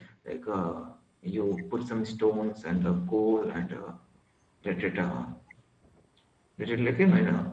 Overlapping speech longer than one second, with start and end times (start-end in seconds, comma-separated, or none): none